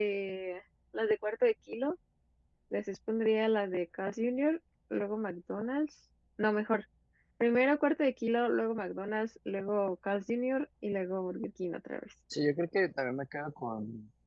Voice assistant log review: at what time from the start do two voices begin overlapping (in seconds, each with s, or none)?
none